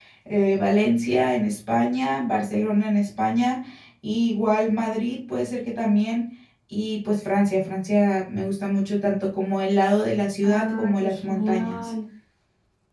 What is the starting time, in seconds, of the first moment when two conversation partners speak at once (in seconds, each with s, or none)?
10.4 s